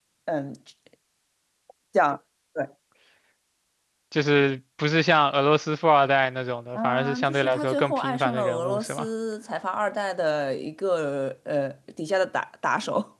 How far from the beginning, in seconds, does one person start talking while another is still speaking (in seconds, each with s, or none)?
6.8 s